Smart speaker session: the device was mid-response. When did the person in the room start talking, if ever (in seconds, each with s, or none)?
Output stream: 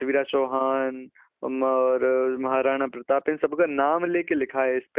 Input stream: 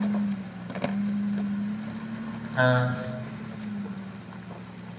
2.5 s